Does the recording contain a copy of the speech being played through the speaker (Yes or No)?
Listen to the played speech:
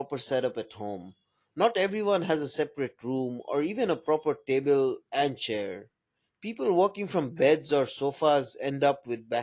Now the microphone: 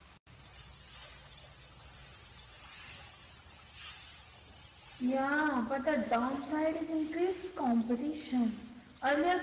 No